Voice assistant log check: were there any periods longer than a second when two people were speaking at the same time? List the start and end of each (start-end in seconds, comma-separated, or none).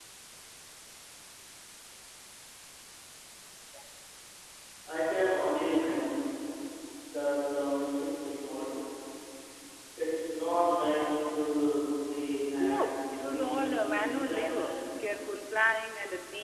12.6-14.8